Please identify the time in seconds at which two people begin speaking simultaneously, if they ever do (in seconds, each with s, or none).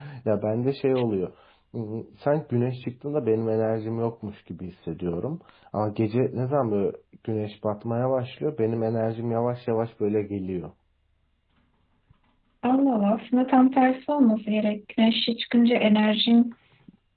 none